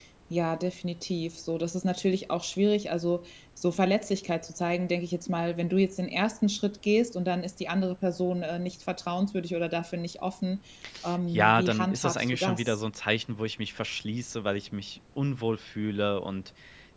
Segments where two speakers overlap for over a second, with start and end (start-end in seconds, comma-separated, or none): 11.3-12.8